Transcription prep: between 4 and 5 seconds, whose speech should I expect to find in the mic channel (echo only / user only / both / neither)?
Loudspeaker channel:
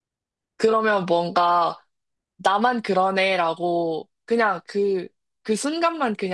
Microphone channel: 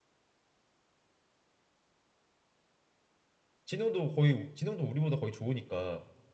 user only